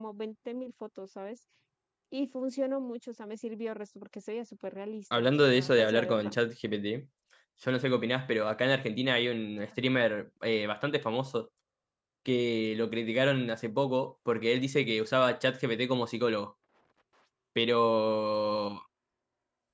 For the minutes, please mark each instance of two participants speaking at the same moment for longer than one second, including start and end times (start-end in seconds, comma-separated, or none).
5.2-6.3